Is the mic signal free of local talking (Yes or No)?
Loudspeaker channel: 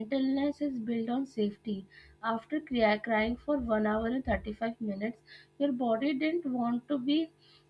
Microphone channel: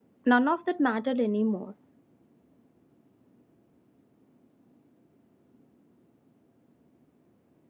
No